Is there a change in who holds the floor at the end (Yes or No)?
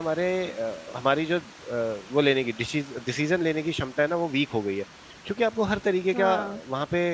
No